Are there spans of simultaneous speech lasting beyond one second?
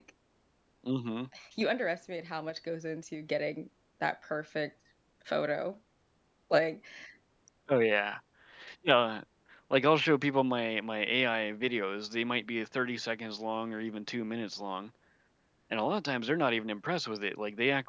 No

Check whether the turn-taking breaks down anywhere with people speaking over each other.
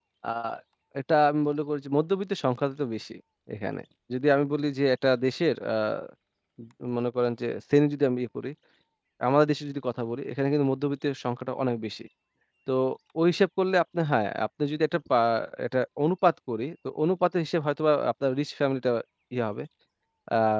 No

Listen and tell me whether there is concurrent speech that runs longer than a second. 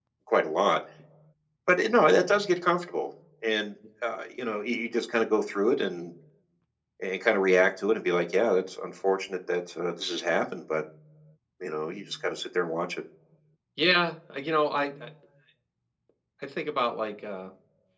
No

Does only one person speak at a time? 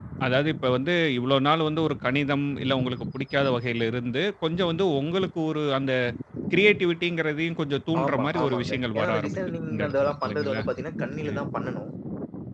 No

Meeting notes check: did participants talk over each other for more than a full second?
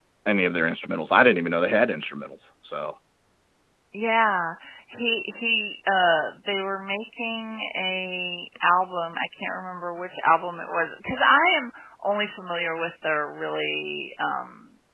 No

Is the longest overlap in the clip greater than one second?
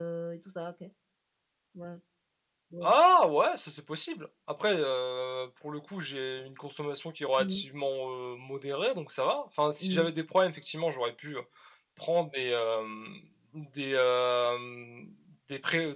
No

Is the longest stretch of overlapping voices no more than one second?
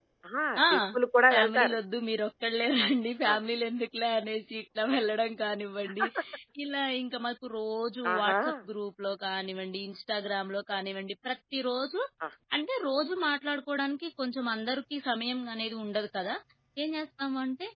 Yes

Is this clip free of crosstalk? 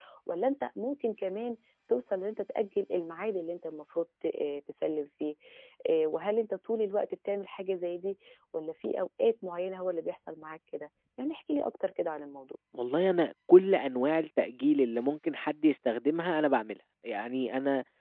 Yes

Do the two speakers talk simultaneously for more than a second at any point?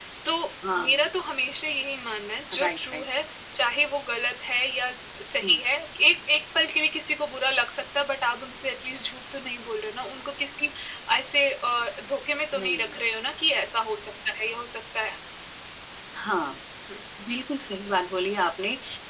No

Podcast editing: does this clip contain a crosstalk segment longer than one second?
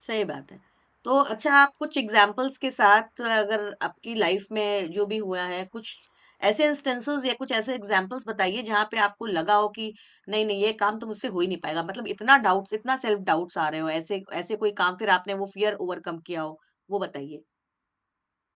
No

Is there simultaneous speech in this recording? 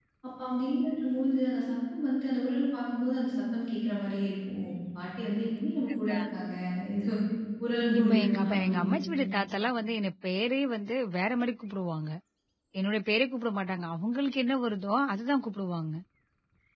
Yes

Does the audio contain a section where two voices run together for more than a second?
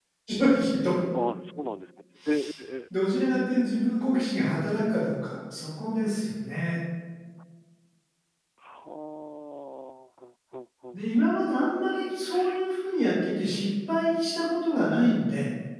No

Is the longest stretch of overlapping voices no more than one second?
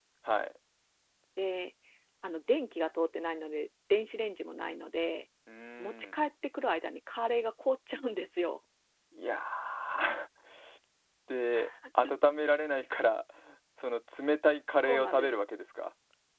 Yes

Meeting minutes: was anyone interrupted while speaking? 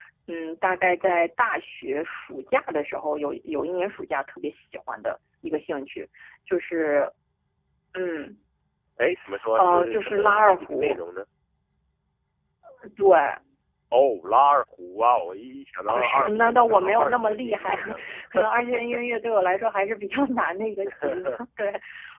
Yes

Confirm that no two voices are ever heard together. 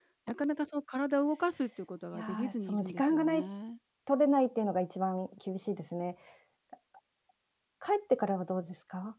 No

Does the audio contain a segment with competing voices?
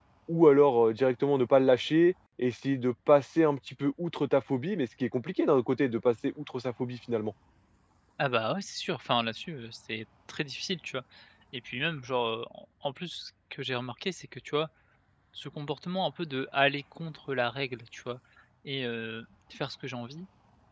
No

